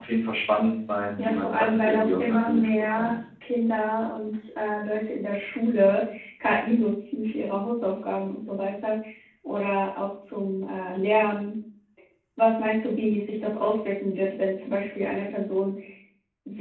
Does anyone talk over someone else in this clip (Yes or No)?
Yes